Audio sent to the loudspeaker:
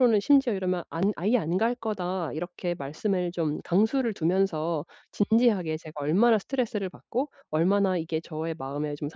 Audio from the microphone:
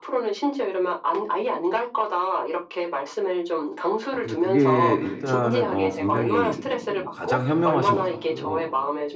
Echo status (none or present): present